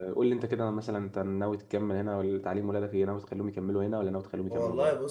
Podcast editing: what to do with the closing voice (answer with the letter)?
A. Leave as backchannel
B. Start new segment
B